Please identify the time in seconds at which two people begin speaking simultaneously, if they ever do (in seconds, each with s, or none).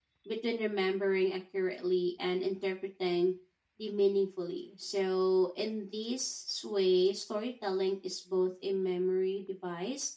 none